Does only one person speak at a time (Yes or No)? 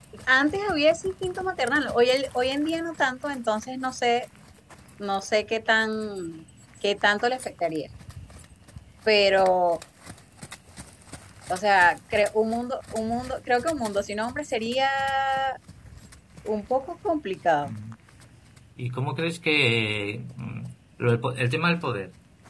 Yes